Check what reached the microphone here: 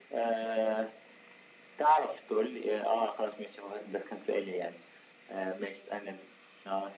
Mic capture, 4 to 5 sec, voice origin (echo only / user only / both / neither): echo only